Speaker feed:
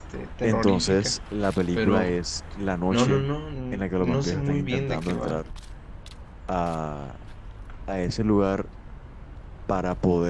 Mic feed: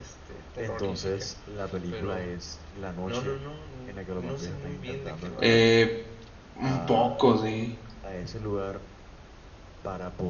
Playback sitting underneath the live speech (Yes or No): Yes